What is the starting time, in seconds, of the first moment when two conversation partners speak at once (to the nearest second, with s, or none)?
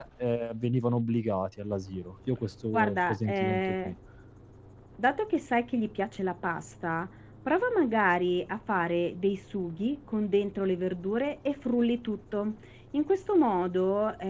3 s